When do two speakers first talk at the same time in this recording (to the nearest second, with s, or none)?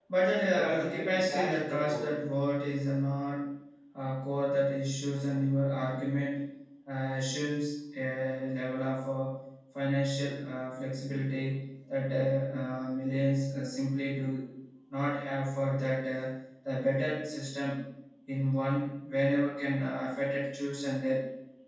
1 s